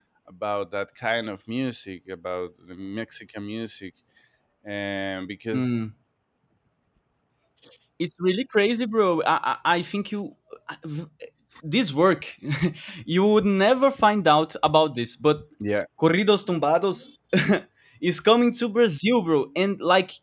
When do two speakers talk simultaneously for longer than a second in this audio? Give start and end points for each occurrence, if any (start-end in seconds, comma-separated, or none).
none